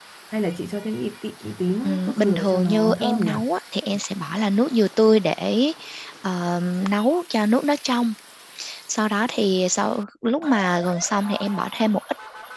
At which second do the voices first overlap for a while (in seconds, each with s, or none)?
1.8 s